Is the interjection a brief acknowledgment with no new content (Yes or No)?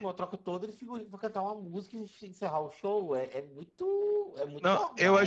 No